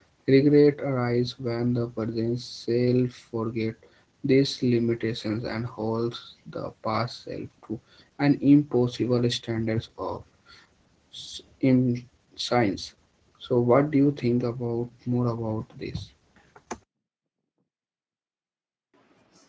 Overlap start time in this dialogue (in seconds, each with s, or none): none